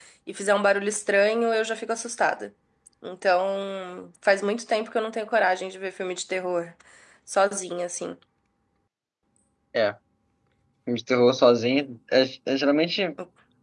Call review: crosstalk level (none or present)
none